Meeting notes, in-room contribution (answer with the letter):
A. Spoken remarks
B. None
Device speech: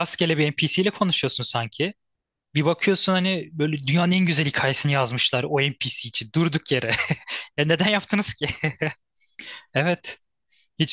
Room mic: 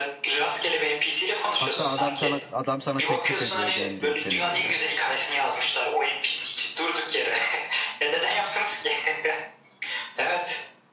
A